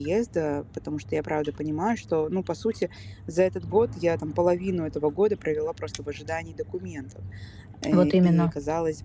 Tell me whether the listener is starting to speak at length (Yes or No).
No